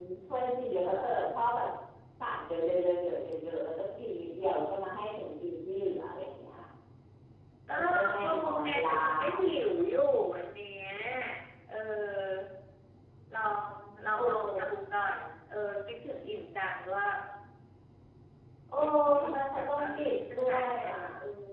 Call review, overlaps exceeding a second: present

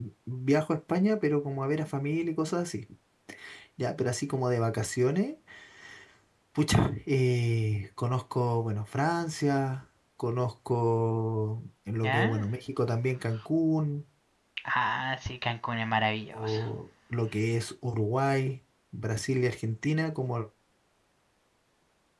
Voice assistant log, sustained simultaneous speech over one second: none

